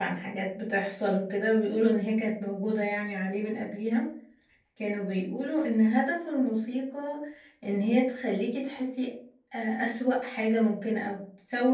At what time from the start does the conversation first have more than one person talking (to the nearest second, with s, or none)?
none